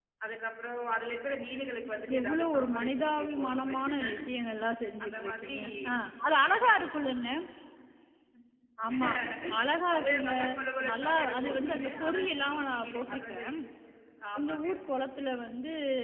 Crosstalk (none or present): present